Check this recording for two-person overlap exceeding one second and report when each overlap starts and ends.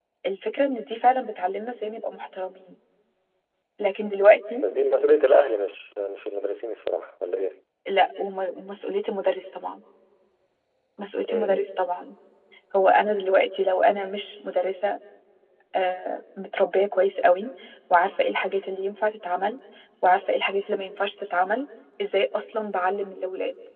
none

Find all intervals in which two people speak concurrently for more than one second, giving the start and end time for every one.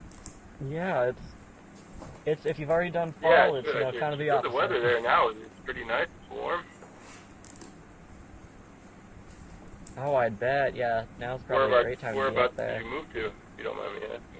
3.2-4.8, 11.5-12.8

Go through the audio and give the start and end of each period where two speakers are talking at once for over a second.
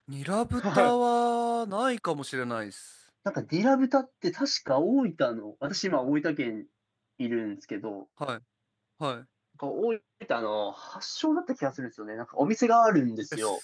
none

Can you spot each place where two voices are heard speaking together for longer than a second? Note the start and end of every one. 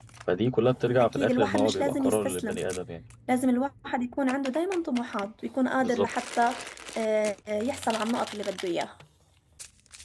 1.0-2.6

